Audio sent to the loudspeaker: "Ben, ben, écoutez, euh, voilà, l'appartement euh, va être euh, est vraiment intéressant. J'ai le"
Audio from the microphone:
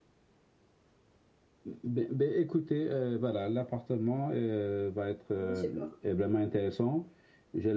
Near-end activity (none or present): present